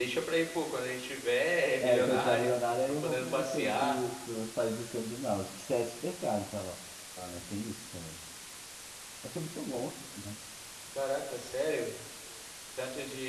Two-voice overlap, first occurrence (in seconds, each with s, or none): 1.8 s